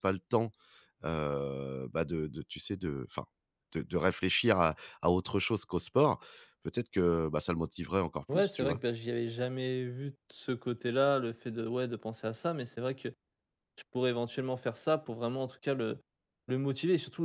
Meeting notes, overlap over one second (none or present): none